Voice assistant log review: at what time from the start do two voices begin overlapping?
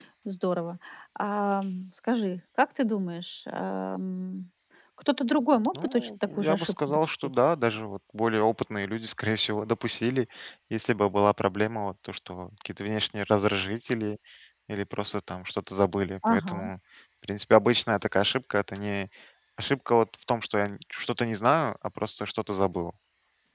5.7 s

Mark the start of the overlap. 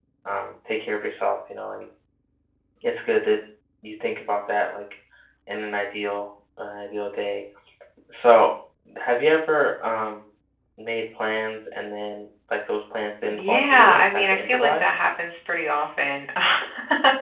13.3 s

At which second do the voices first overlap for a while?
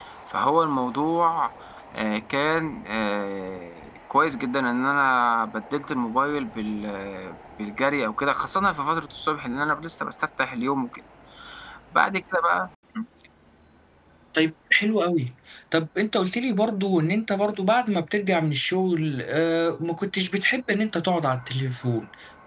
none

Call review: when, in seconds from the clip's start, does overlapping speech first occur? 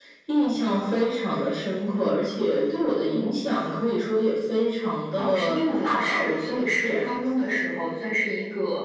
5.2 s

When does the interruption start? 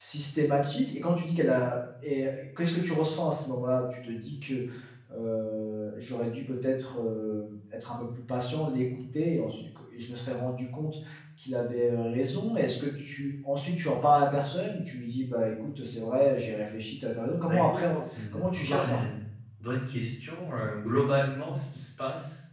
17.4 s

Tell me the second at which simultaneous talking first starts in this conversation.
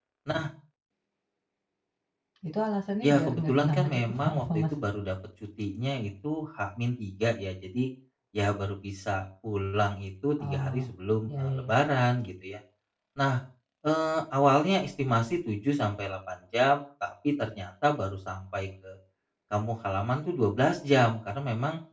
3.0 s

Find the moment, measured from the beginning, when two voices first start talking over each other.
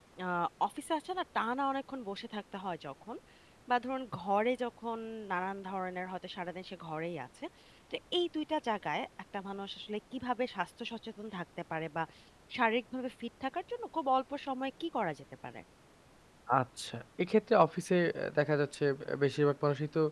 none

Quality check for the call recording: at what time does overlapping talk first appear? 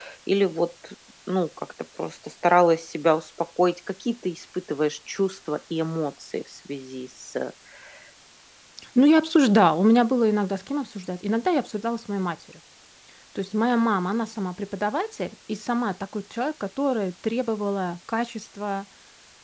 none

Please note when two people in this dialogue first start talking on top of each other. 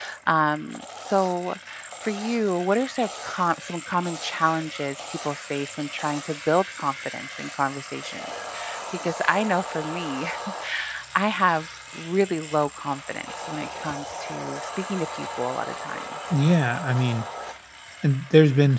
none

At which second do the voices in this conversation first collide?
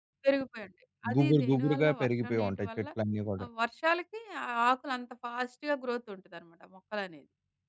1.2 s

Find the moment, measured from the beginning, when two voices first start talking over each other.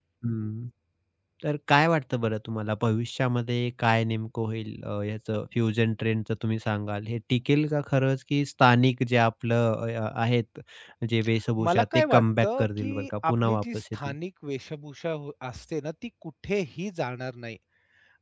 11.6 s

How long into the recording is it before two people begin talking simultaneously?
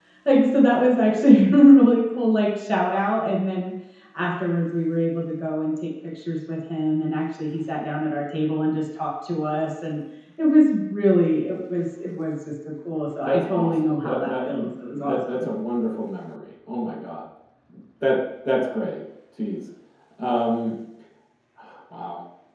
13.2 s

